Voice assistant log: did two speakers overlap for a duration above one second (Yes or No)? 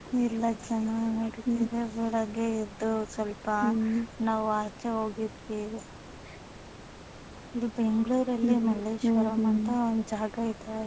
Yes